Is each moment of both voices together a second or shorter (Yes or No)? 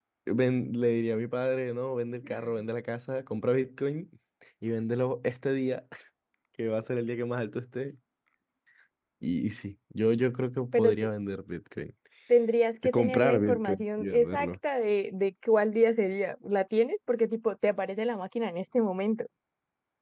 No